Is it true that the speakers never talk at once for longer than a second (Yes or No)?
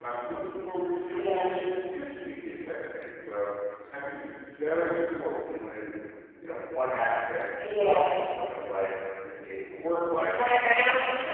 Yes